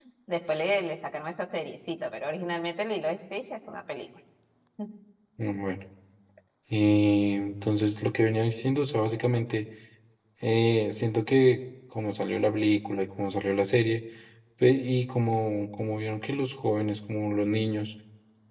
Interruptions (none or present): none